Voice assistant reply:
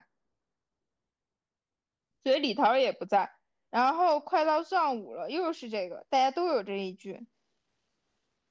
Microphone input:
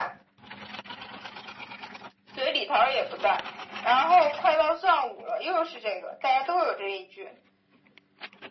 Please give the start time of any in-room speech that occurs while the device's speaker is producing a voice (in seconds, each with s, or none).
none